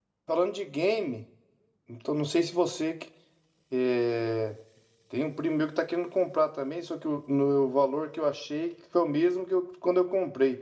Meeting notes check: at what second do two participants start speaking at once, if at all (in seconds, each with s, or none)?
none